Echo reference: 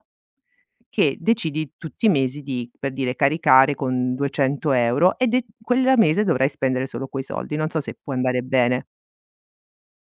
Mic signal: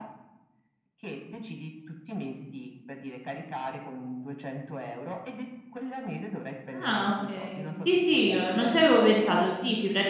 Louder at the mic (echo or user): user